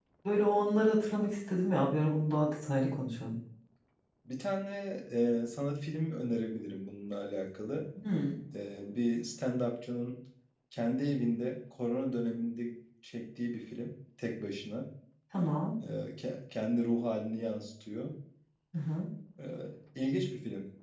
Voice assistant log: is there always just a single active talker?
Yes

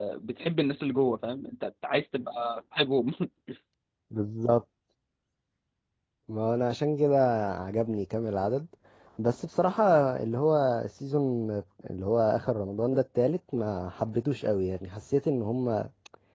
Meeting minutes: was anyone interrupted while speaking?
No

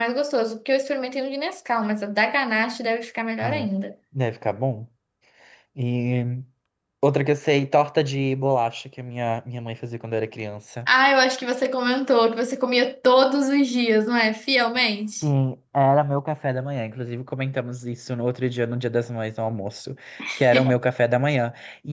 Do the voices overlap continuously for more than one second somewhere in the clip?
No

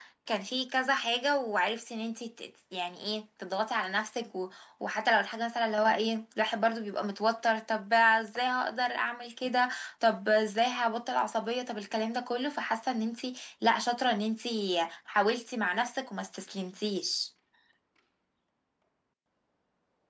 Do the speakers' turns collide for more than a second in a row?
No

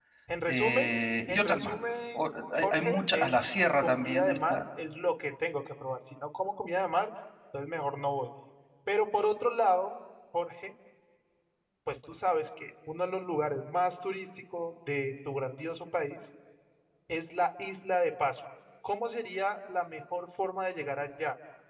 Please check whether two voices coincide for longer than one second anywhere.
Yes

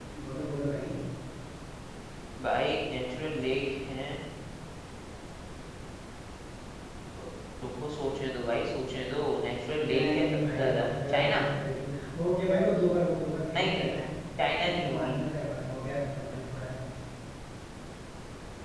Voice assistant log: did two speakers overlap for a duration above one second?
Yes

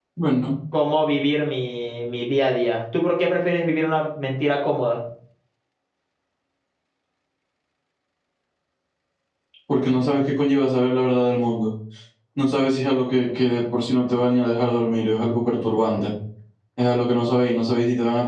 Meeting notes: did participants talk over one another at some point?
No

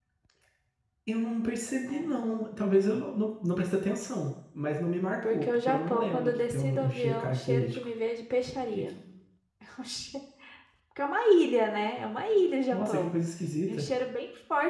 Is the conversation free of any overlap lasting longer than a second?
No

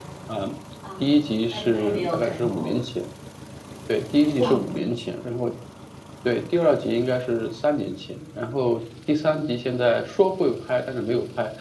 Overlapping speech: Yes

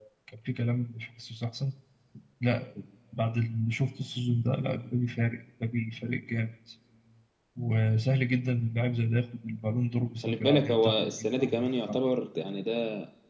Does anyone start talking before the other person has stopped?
Yes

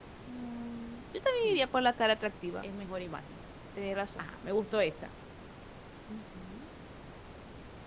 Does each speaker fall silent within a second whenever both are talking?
Yes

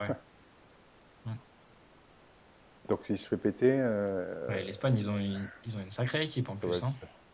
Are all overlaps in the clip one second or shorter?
Yes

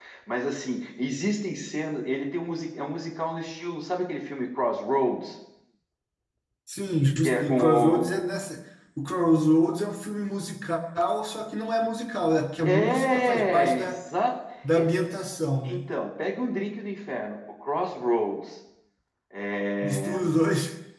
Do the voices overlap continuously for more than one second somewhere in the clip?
Yes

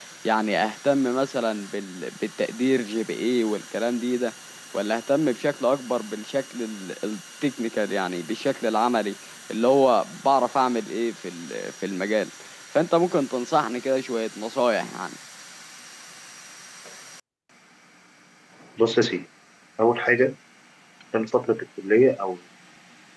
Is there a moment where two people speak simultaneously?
No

